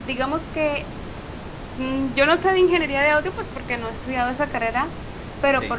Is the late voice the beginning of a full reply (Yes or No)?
No